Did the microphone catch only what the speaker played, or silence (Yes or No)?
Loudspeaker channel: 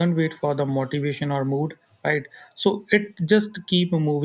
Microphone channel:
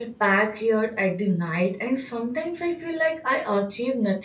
No